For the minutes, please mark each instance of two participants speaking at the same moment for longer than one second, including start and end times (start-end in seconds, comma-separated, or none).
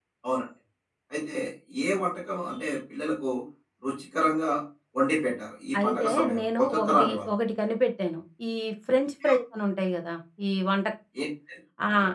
5.8-7.3